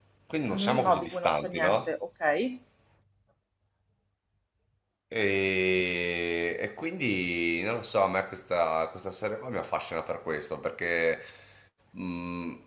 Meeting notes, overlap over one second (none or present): present